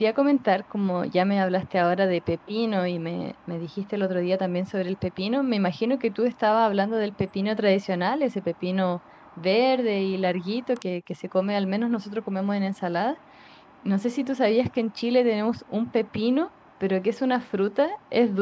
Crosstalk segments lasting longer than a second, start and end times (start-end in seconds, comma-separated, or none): none